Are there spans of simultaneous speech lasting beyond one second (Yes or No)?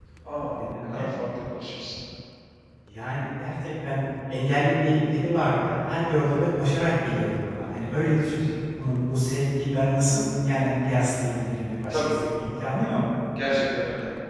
No